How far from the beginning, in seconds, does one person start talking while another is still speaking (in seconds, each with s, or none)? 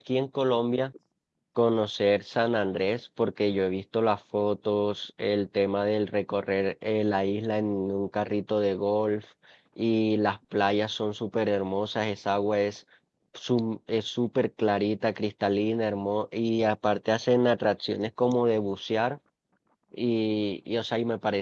none